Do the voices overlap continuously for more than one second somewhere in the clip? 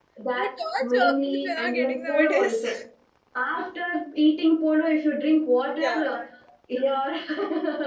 Yes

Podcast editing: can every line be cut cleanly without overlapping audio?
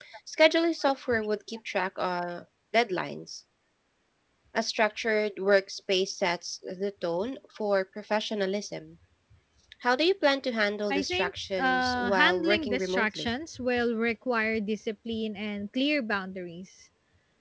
No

